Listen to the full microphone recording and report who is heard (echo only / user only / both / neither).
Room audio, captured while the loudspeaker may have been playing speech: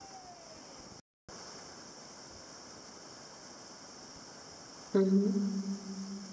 user only